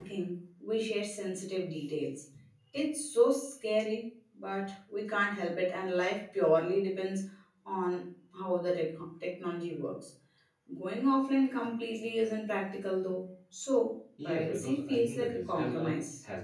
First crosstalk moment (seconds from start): 14.2 s

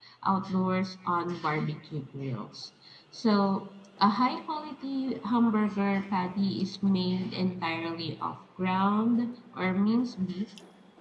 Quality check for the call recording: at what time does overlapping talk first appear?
none

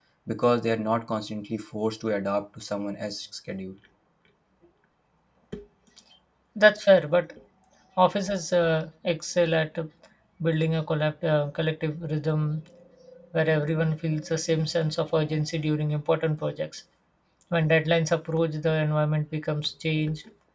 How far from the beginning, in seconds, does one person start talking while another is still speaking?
none

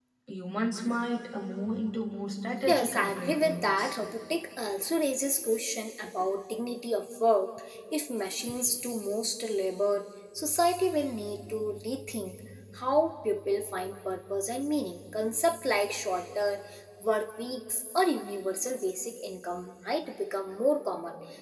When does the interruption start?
2.7 s

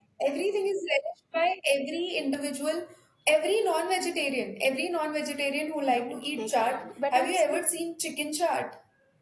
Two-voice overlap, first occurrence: 5.8 s

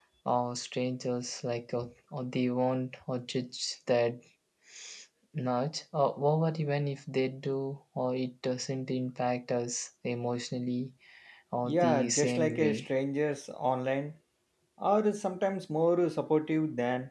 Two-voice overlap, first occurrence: 11.6 s

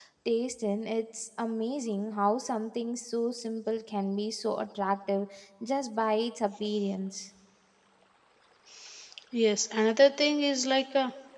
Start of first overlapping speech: none

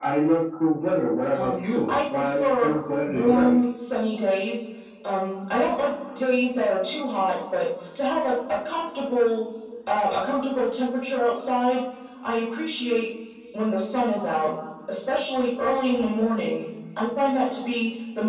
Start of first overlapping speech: 1.3 s

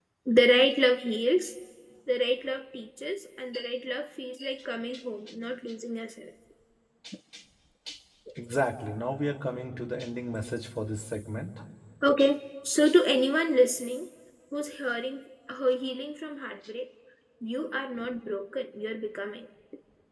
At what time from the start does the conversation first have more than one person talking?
none

